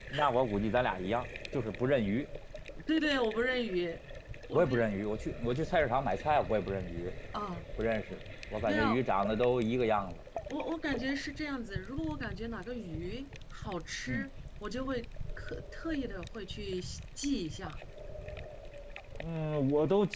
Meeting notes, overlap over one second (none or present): none